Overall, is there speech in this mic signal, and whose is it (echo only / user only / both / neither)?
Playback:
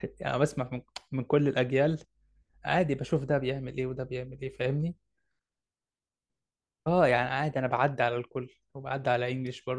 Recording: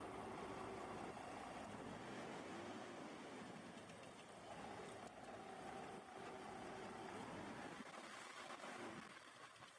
neither